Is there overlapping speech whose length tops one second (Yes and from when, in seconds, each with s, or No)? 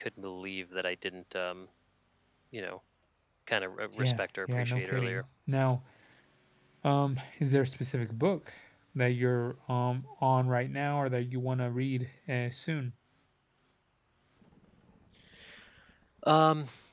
Yes, from 3.9 s